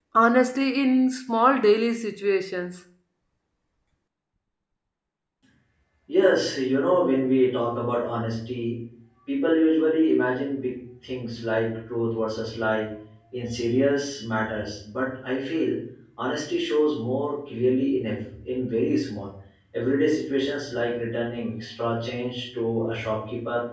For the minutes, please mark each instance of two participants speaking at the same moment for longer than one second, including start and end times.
none

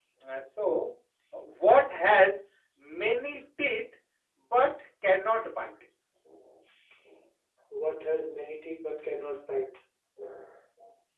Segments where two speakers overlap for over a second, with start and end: none

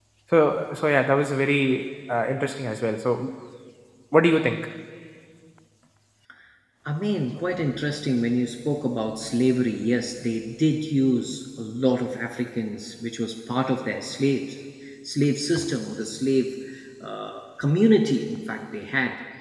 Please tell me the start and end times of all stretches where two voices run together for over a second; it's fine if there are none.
none

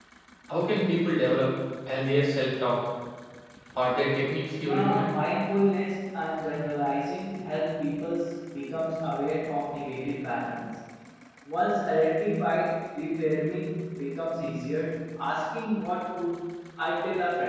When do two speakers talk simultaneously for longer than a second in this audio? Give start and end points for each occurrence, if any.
none

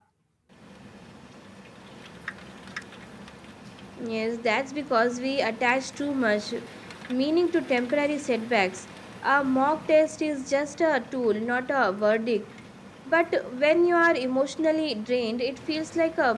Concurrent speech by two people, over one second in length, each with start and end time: none

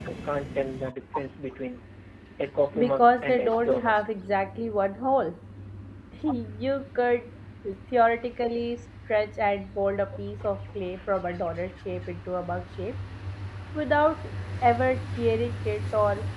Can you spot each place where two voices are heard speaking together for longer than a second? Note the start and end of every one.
2.8-4.1

